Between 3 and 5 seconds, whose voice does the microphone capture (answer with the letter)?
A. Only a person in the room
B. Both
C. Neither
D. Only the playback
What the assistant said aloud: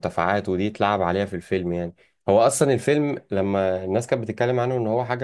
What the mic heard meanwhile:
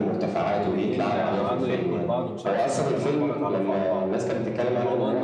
B